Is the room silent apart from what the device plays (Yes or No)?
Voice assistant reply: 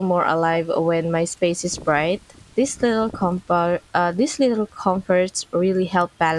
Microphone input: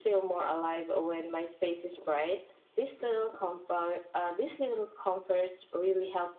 Yes